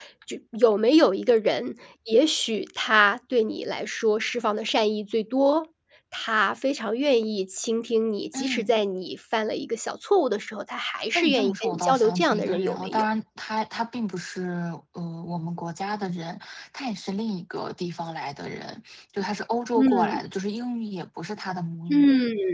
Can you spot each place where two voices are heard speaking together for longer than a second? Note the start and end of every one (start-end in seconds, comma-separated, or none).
11.1-13.1